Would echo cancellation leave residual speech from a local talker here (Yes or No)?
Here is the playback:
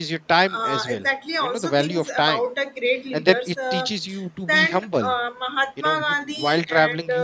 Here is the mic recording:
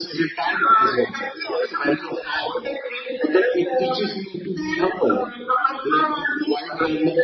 No